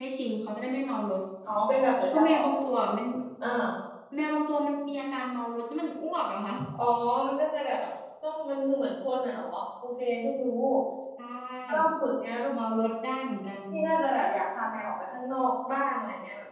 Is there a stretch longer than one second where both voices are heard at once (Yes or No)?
No